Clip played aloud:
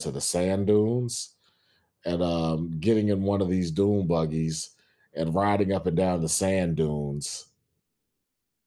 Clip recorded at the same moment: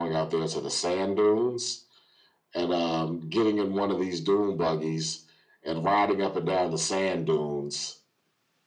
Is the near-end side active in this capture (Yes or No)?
No